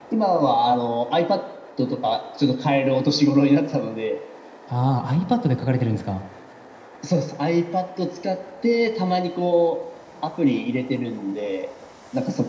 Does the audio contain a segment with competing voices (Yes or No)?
No